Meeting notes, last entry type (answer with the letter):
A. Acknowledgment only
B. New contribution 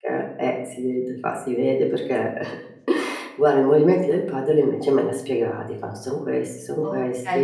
B